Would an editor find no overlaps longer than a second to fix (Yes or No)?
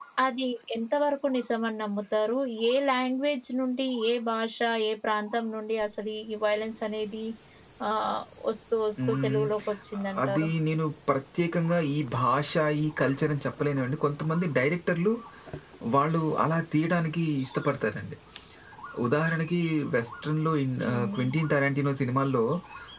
Yes